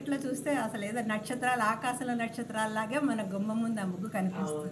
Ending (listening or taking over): taking over